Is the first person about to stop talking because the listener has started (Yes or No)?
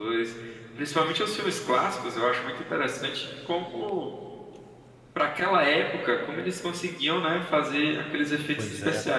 No